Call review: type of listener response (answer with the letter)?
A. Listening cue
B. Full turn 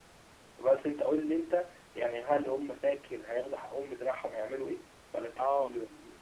B